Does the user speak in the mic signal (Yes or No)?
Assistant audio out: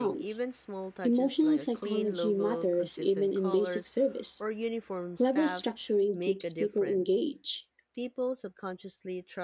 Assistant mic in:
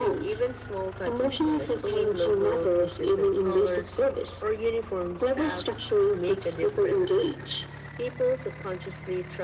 No